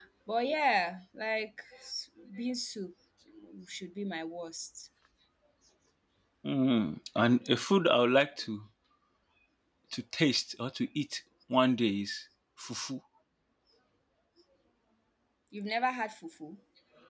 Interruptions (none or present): none